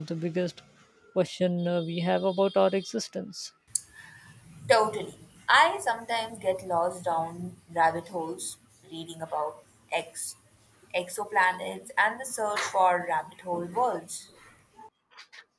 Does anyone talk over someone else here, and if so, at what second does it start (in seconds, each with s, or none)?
none